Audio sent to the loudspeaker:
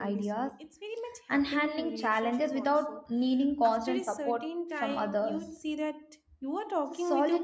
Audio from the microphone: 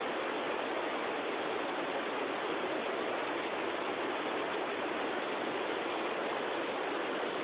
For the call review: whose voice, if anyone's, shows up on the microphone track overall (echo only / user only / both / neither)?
neither